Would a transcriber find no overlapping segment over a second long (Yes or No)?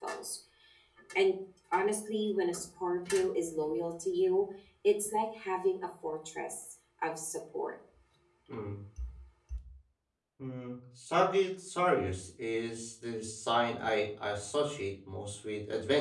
Yes